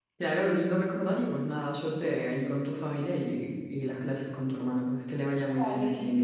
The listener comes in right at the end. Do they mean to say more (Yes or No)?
Yes